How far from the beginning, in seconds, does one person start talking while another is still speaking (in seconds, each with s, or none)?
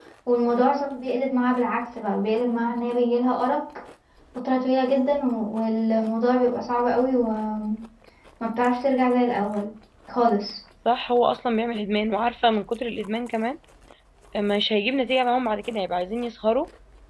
none